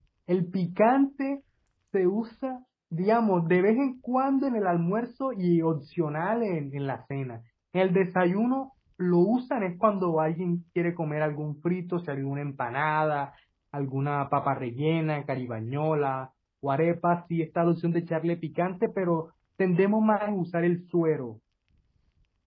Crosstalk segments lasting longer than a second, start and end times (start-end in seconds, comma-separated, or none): none